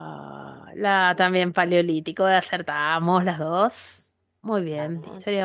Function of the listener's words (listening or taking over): listening